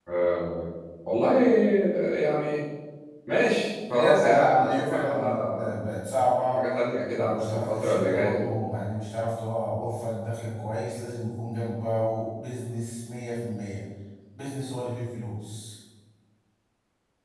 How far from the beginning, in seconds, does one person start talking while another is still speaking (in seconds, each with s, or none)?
4.0 s